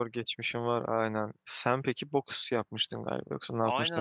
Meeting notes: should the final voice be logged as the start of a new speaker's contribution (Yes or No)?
Yes